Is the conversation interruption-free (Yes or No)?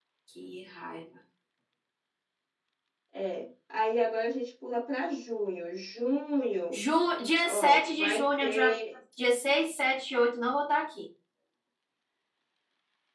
No